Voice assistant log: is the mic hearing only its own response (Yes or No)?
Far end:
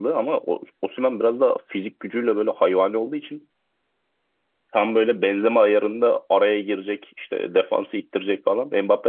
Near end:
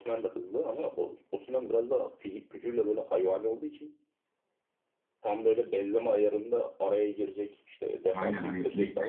No